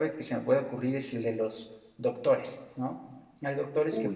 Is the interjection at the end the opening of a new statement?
No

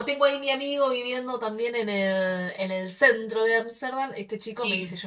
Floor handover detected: No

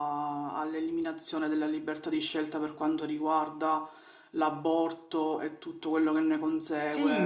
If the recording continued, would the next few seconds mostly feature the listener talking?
Yes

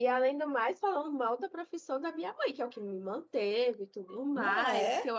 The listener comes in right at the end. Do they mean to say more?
No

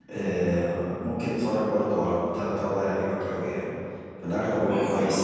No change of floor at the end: No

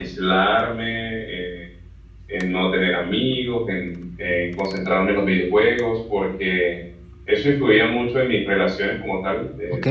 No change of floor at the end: No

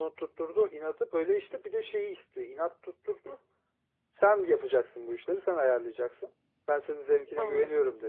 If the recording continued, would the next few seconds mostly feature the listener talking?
No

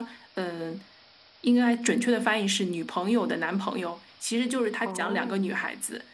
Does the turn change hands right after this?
No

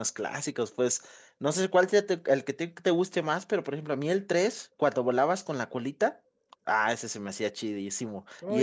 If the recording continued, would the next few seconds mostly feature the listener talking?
Yes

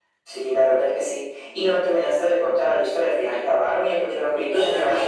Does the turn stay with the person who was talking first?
No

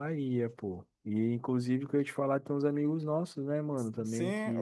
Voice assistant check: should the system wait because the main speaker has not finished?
No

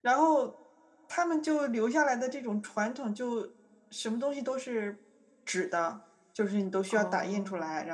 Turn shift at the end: No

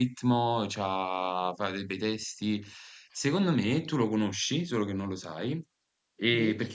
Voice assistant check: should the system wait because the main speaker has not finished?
Yes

